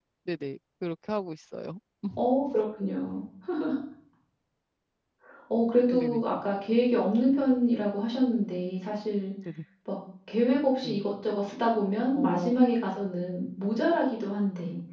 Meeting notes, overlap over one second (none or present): none